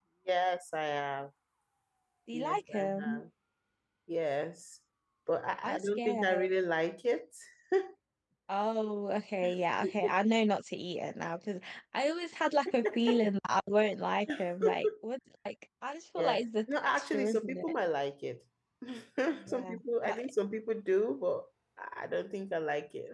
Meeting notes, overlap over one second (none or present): present